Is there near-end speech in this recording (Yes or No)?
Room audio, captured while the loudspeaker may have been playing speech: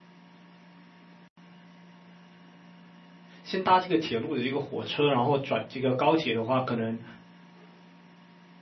Yes